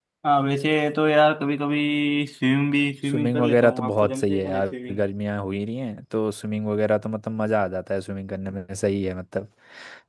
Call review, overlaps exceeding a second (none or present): present